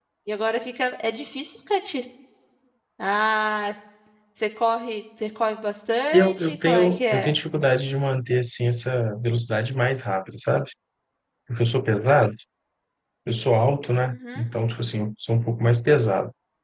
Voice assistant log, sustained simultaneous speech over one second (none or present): present